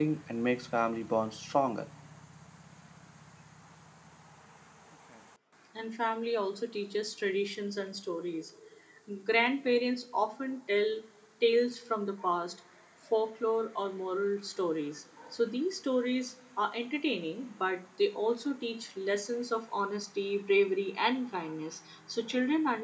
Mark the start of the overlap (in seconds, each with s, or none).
none